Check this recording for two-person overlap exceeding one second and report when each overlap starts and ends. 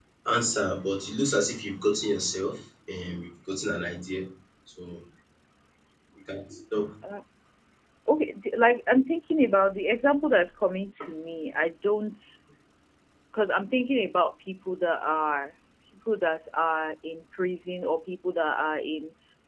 none

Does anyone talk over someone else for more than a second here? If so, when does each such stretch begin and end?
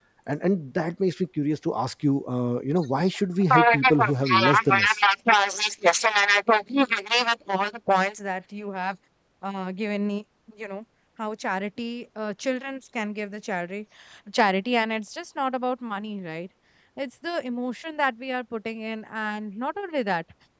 3.5-5.0

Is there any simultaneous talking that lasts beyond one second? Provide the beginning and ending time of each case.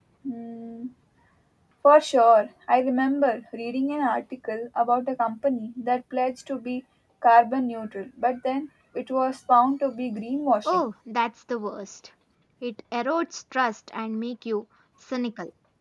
none

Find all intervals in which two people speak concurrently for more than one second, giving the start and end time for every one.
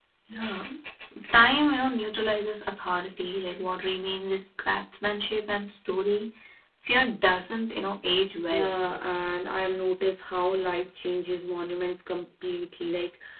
none

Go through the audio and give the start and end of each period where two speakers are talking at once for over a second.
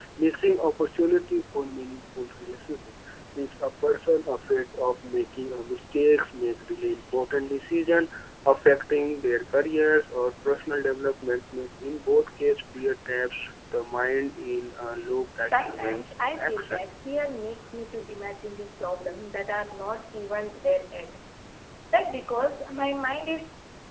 15.5-16.8

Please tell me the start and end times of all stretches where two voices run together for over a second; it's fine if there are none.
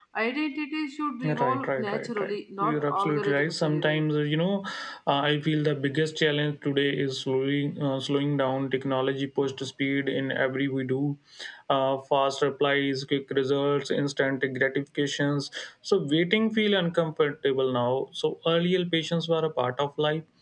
1.2-4.0

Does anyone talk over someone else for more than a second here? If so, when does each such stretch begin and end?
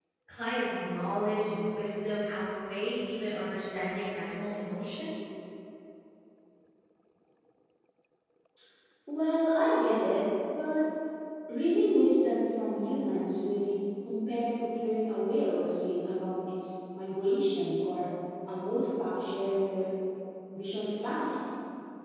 none

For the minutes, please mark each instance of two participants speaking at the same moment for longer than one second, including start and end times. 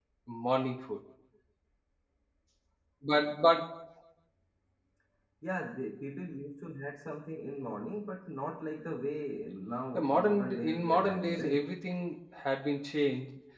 9.9-11.7

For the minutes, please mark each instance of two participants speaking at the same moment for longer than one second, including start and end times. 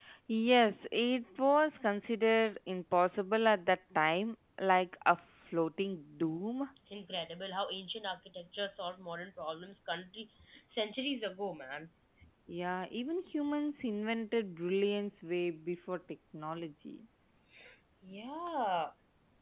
none

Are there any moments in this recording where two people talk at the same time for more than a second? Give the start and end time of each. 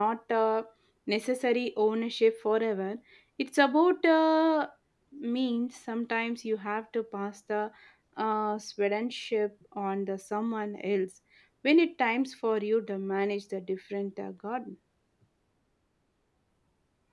none

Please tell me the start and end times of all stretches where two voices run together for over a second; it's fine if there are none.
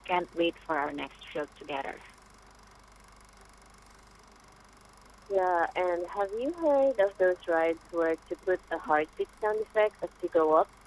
none

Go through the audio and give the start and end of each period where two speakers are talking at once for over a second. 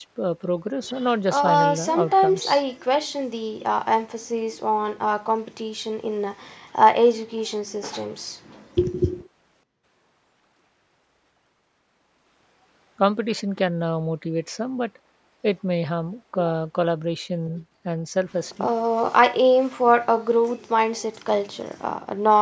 1.3-2.6

